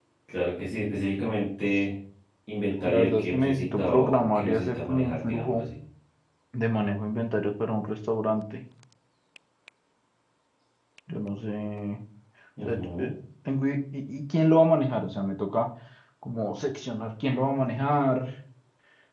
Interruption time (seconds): 2.9 s

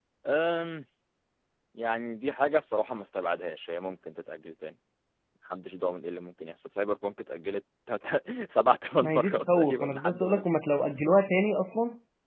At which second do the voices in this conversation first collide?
9.0 s

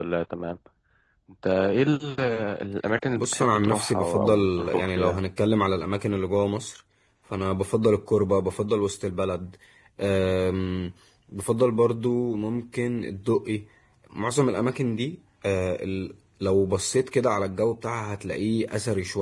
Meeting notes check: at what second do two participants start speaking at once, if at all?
3.2 s

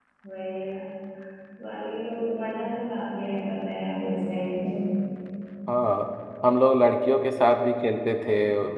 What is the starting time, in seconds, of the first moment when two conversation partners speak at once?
none

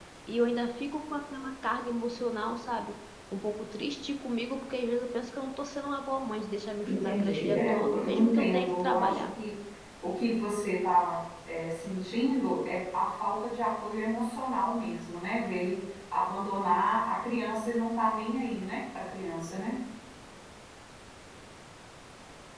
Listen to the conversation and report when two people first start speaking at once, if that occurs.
6.9 s

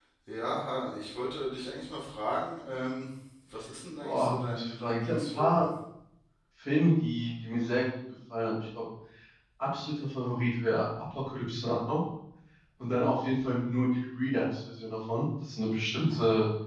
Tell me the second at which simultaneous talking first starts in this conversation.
4.0 s

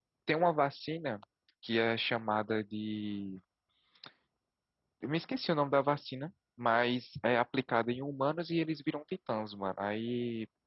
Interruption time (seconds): none

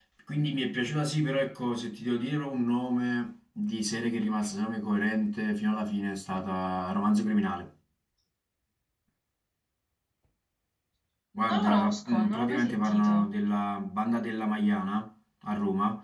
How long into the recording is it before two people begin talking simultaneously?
11.5 s

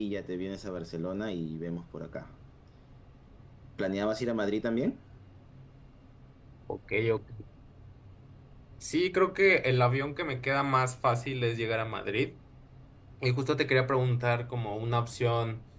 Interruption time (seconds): none

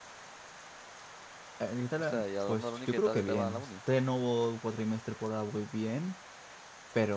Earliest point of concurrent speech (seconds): 2.1 s

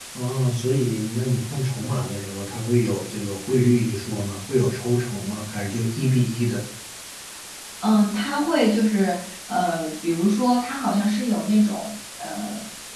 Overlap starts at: none

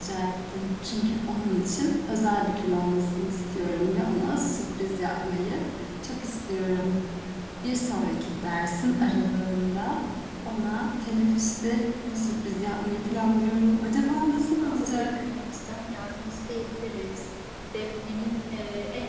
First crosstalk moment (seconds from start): 13.7 s

